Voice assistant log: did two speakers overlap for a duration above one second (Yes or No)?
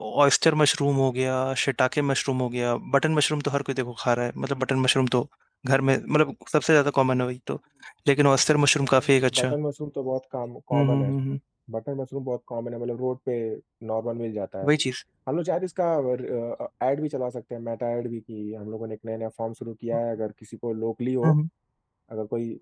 No